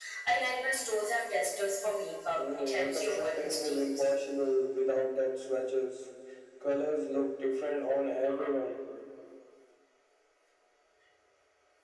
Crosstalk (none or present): present